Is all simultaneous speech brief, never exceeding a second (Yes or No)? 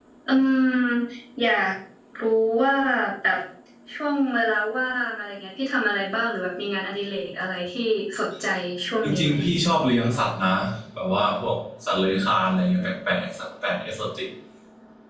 Yes